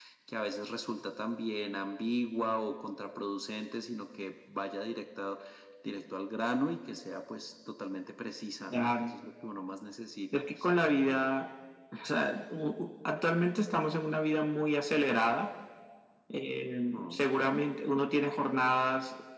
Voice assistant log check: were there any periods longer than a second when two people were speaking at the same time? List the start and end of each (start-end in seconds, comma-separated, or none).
none